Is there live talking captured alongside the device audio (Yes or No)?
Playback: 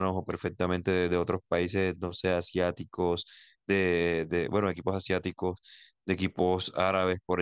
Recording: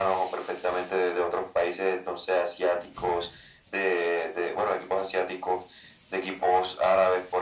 No